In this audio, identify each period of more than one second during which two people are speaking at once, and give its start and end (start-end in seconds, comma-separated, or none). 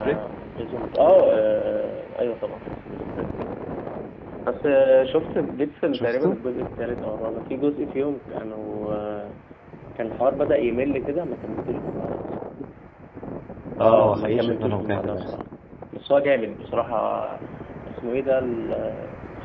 13.8-15.3